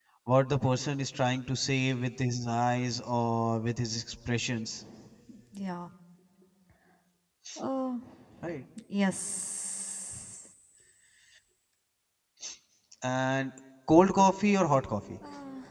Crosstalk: none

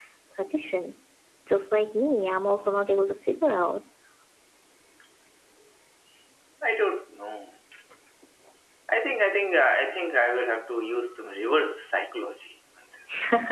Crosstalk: none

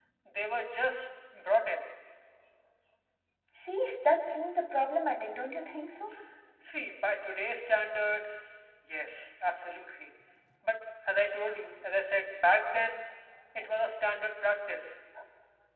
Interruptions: none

